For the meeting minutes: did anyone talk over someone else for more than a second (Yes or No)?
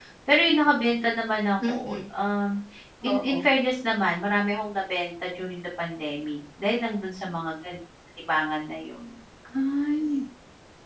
No